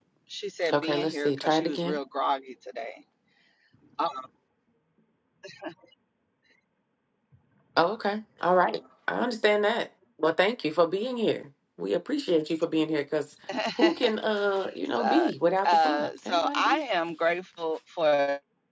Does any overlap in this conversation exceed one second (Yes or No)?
Yes